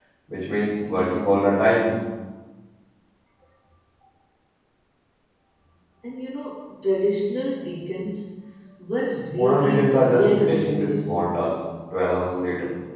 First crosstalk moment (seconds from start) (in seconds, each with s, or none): 9.3 s